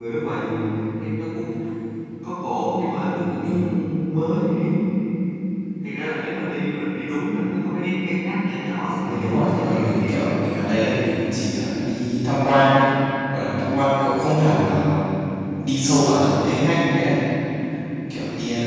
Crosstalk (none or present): present